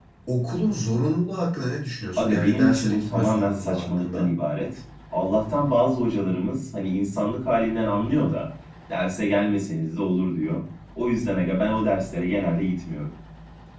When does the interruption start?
2.2 s

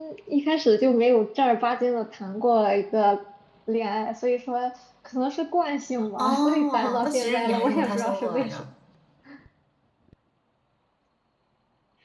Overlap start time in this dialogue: 6.2 s

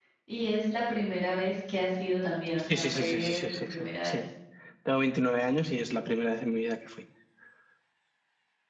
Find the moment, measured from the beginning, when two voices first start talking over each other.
2.7 s

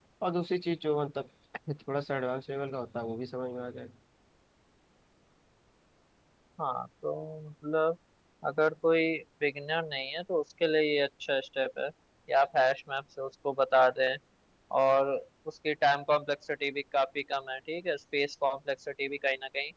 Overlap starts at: none

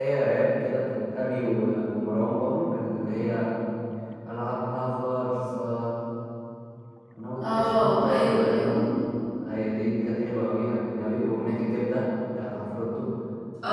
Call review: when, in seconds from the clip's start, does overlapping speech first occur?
7.4 s

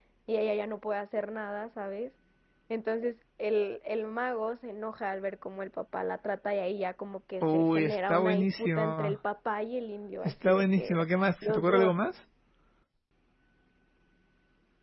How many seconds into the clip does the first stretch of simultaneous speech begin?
7.4 s

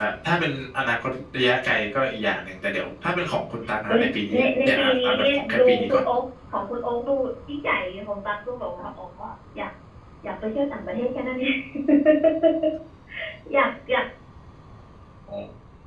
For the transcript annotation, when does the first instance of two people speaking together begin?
3.9 s

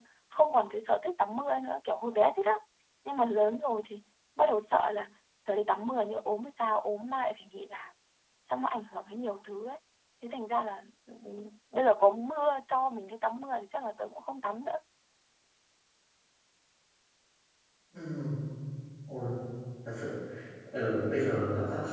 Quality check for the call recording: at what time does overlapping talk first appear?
none

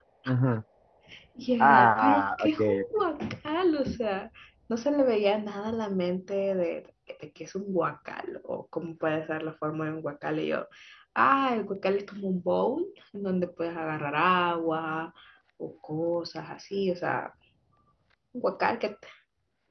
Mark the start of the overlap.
1.6 s

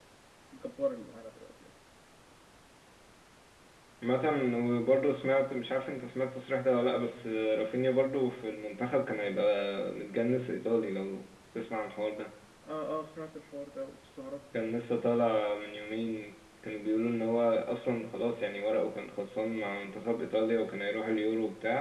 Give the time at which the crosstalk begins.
none

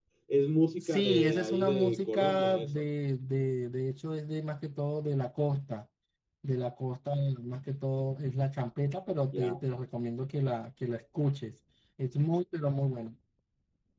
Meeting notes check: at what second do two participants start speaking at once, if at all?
0.8 s

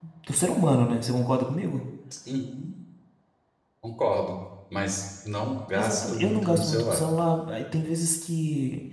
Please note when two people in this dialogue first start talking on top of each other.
5.7 s

